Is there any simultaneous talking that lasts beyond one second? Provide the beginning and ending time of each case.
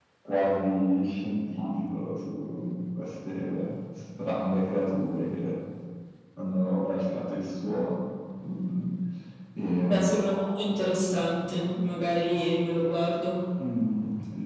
none

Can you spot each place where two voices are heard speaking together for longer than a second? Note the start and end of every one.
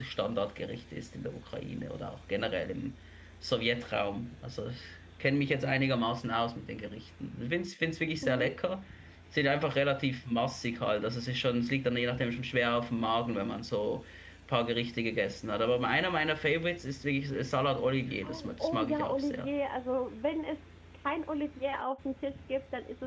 18.2-19.5

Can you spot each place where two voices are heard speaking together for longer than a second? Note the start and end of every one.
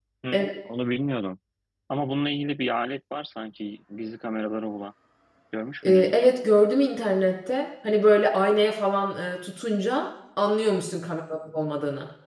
none

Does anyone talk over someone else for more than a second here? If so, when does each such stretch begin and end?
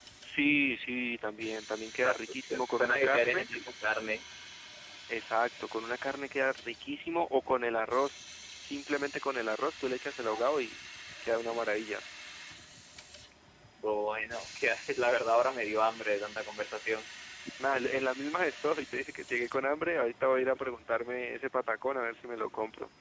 2.0-3.5

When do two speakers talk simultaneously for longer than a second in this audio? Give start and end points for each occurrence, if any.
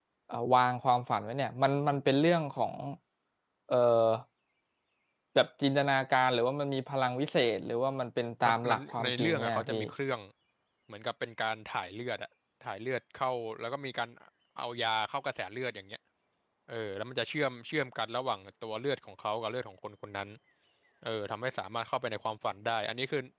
8.4-9.8

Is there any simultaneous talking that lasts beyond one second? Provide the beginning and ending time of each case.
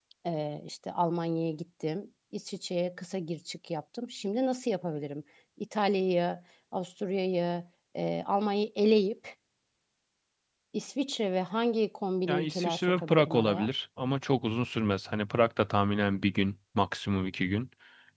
12.3-13.7

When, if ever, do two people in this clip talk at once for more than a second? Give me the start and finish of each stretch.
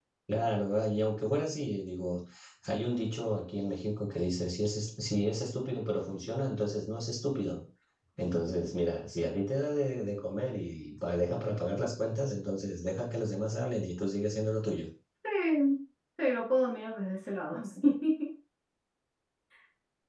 none

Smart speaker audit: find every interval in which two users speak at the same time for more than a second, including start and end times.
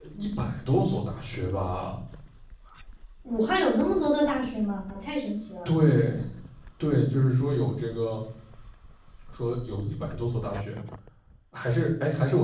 none

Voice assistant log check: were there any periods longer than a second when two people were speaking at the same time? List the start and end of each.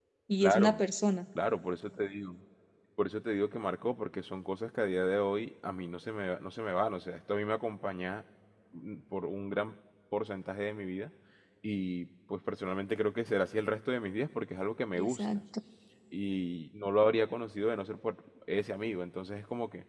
none

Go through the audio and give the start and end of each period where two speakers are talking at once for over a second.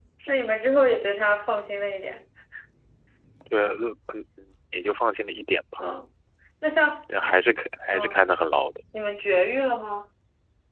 none

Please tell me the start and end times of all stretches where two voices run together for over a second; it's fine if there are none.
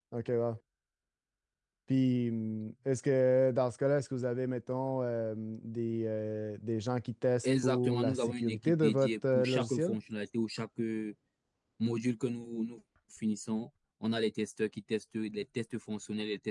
7.4-9.9

